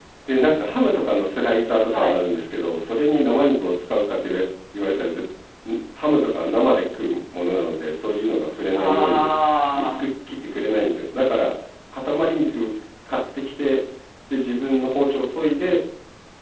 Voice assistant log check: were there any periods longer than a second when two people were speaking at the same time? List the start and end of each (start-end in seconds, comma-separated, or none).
none